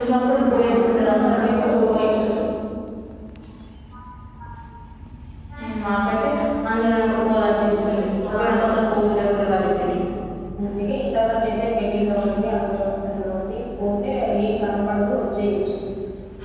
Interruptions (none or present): present